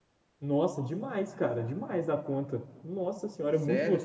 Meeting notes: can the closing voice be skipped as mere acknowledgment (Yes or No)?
No